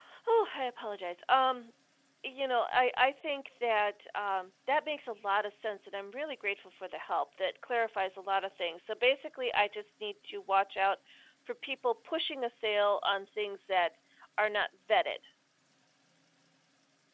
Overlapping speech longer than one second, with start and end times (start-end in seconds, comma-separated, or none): none